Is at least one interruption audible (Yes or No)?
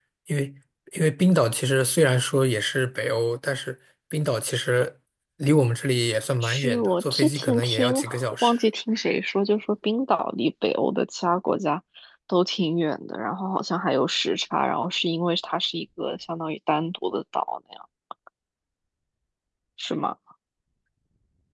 Yes